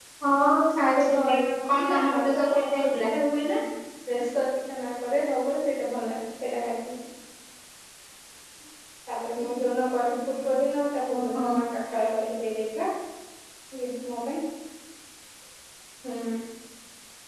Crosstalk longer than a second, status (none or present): present